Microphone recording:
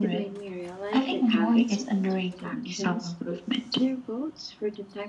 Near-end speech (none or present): present